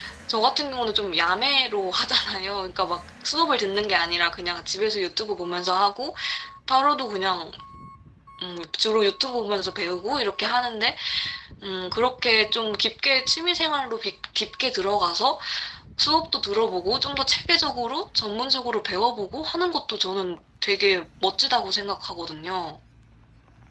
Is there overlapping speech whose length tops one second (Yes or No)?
No